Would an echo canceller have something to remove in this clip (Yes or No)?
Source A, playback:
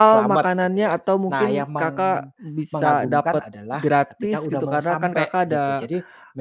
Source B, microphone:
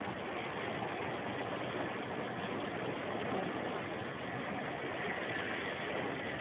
No